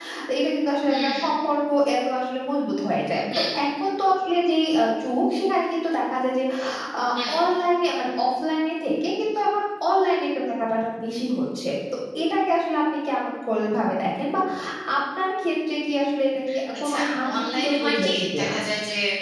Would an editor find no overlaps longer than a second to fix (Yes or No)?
No